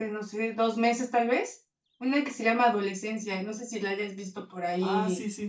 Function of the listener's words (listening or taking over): taking over